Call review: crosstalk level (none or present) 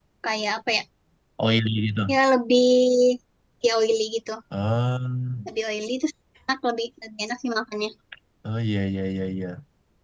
none